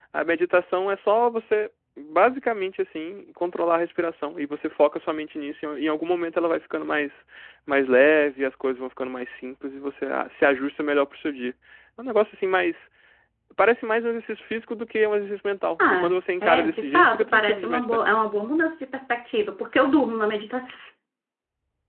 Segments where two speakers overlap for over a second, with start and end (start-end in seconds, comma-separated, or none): 15.9-18.0